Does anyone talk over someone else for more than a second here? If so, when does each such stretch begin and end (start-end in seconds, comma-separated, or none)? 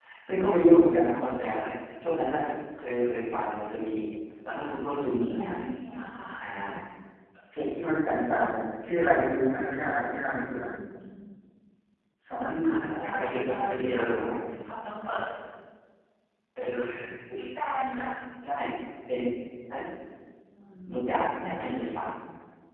12.6-14.0